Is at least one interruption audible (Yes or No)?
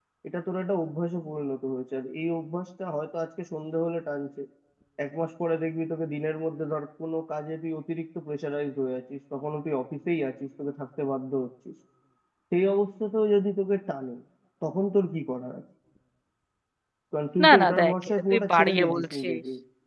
Yes